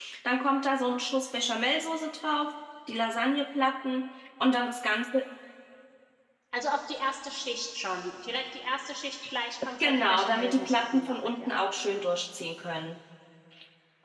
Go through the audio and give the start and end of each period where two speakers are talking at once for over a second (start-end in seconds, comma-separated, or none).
9.8-11.5